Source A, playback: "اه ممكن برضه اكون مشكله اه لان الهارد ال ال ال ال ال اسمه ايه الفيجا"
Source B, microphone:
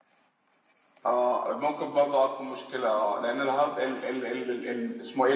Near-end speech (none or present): none